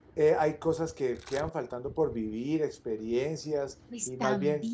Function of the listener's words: taking over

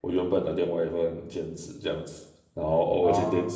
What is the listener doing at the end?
listening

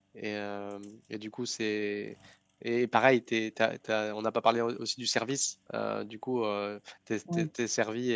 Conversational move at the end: listening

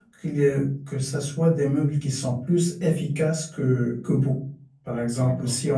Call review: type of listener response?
listening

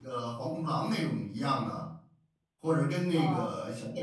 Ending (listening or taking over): listening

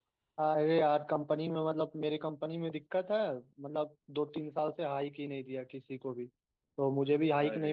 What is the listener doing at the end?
listening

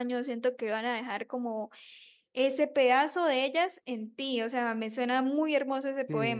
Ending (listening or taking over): taking over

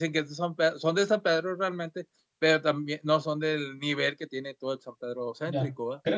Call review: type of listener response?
taking over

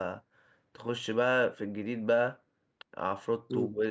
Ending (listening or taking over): listening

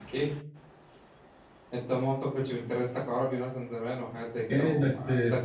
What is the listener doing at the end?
taking over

